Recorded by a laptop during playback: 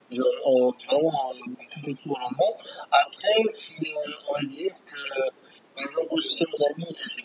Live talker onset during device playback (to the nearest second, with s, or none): none